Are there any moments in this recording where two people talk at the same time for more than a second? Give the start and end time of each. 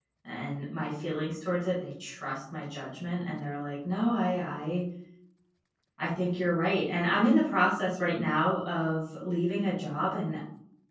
none

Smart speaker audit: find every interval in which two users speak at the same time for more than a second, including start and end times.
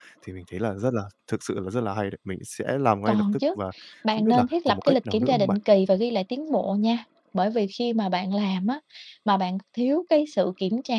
4.1-5.6

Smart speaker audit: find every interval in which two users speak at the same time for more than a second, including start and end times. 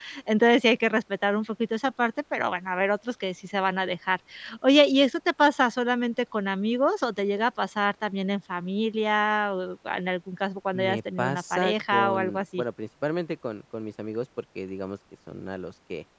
10.7-12.6

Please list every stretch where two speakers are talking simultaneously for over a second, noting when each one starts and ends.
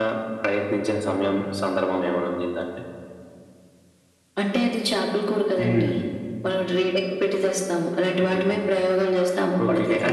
none

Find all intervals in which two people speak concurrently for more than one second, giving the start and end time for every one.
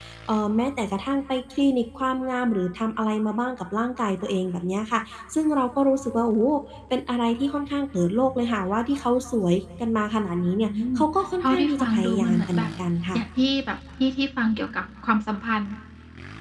11.4-12.7

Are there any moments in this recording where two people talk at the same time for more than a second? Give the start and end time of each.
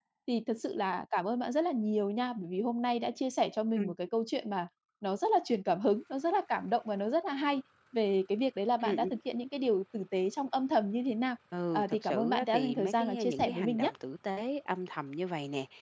11.7-13.9

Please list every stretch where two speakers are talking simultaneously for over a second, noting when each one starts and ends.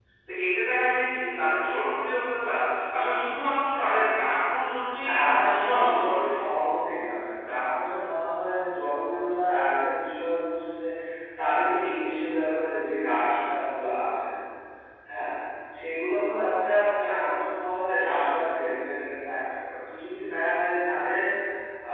5.0-6.2

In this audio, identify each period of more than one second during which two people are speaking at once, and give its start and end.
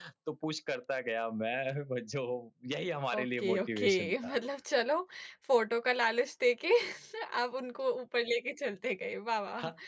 3.1-4.4

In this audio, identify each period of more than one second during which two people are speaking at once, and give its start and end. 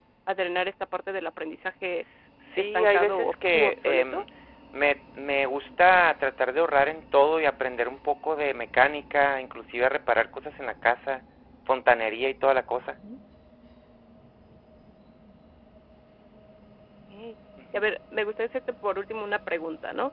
2.6-4.2

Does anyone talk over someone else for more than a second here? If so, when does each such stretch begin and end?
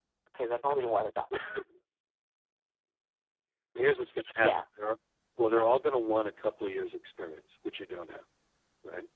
none

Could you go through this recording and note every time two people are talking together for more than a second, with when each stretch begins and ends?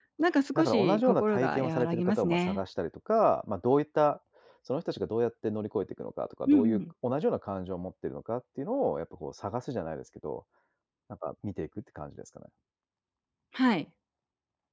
0.6-2.6

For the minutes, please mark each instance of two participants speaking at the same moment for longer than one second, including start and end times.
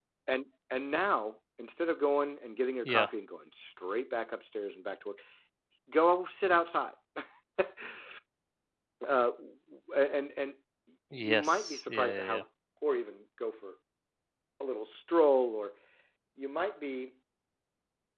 11.1-12.4

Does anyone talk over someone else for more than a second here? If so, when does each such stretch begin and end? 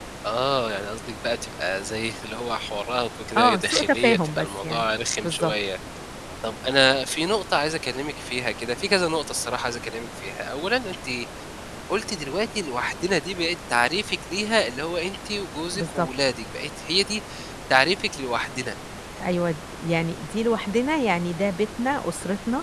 3.4-4.8

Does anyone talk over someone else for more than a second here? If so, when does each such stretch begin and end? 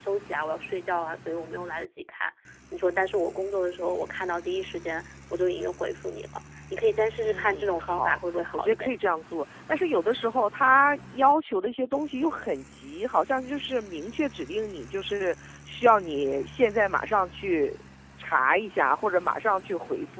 7.2-8.9

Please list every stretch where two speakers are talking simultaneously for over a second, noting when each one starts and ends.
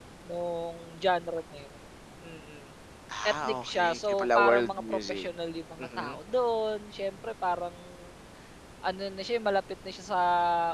3.3-5.3

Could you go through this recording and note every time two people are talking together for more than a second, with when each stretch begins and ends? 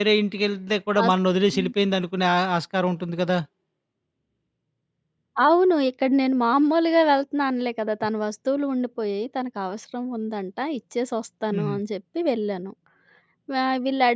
none

